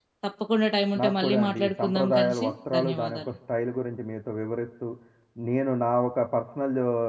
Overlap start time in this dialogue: 1.0 s

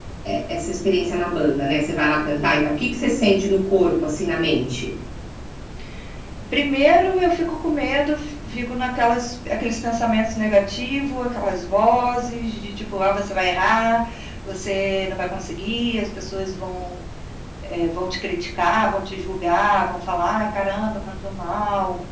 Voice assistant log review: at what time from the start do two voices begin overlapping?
none

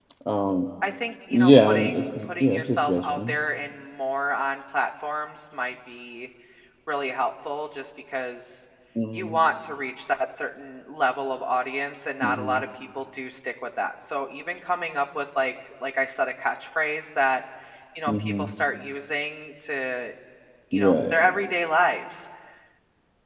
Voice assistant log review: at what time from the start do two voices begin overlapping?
1.3 s

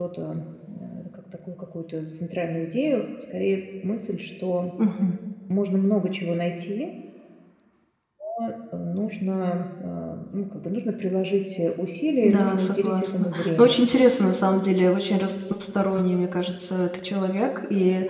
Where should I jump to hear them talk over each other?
12.2 s

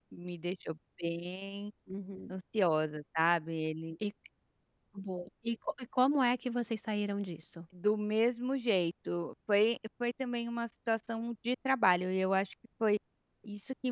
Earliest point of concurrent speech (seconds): none

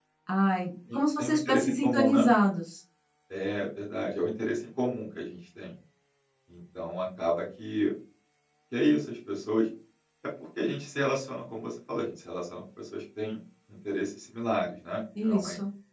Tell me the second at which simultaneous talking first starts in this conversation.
0.9 s

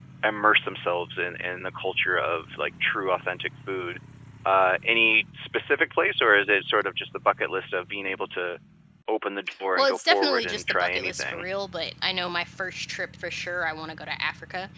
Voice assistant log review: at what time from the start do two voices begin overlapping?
9.8 s

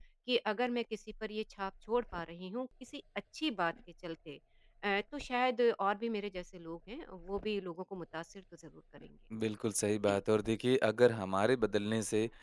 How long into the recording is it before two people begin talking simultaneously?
none

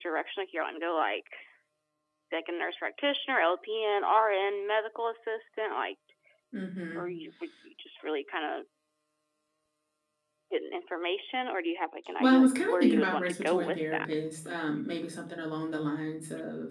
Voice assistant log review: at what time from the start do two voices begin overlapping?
12.2 s

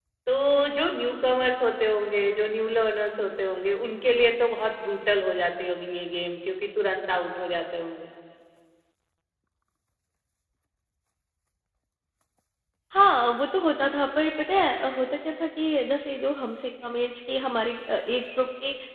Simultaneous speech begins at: none

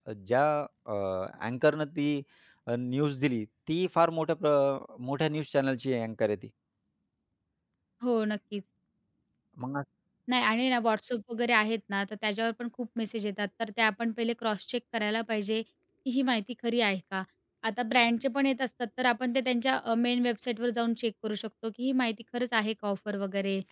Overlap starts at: none

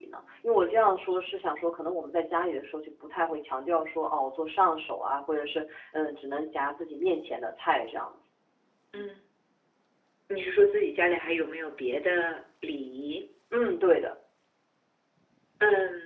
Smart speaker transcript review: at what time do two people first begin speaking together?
none

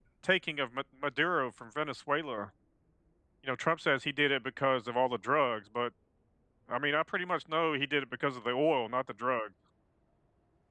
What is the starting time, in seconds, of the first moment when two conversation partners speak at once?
none

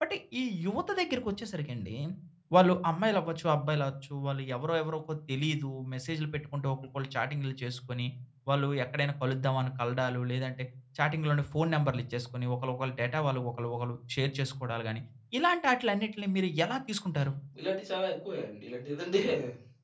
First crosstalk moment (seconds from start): none

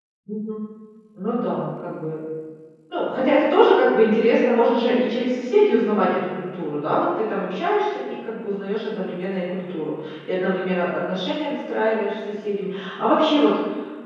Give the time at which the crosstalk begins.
none

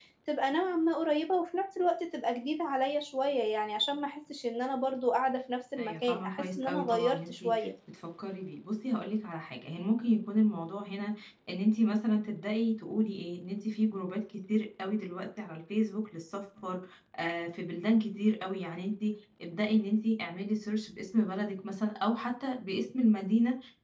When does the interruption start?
5.8 s

